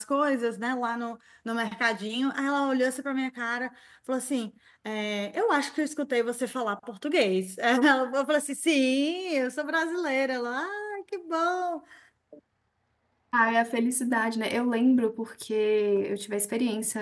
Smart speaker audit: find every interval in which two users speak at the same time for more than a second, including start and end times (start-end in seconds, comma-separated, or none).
none